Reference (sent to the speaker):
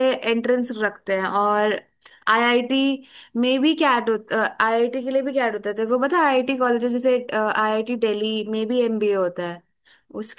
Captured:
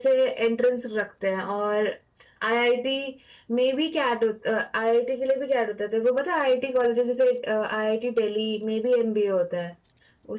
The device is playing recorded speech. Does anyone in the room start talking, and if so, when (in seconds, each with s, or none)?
none